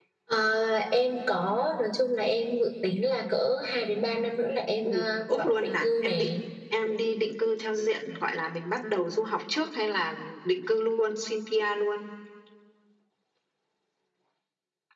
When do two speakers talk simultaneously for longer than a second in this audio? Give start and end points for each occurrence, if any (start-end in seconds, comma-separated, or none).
4.8-6.4